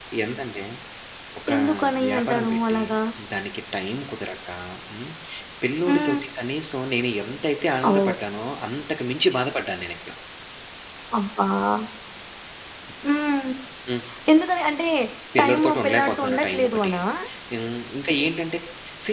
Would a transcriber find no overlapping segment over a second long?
No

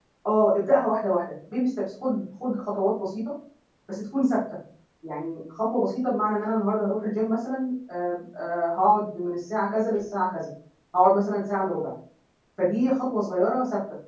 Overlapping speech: No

